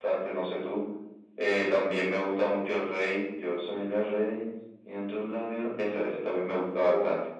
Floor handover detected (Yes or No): No